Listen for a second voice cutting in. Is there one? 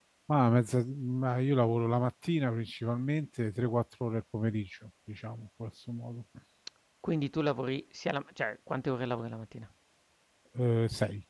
No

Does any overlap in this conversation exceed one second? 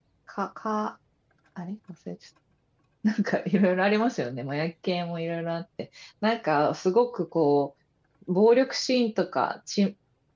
No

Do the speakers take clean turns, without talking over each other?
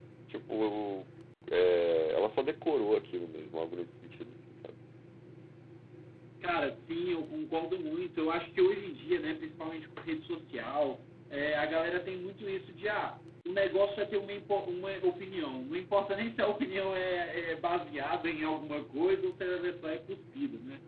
Yes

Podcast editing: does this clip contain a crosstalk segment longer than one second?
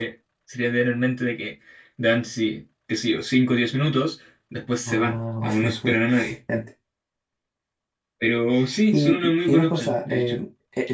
Yes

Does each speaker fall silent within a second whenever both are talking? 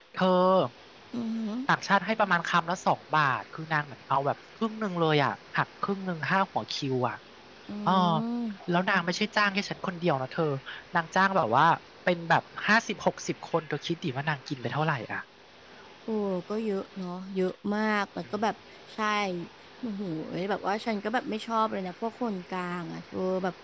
Yes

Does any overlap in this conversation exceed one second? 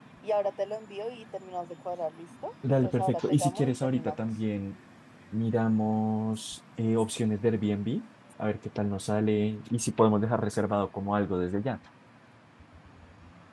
Yes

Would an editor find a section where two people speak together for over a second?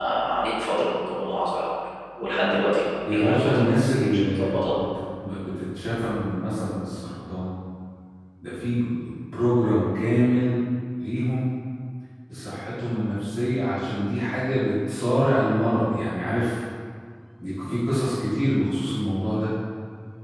Yes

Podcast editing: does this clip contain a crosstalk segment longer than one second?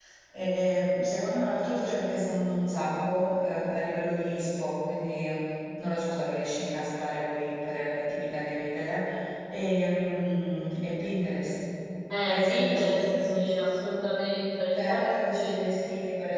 Yes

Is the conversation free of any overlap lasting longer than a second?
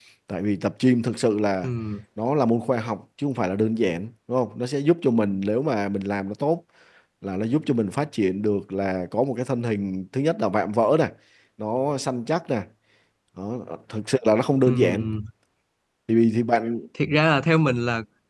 Yes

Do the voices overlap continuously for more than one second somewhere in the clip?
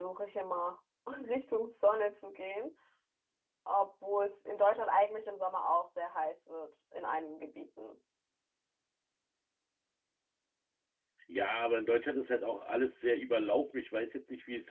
No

